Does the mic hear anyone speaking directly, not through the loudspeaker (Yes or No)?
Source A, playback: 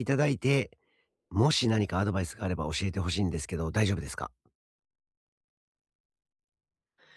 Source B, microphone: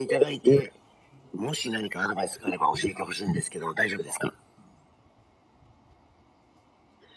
No